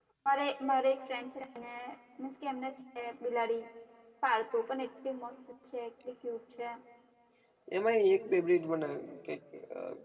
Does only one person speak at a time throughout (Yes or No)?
Yes